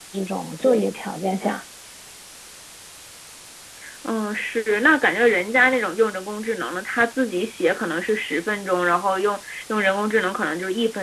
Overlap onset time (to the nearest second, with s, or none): none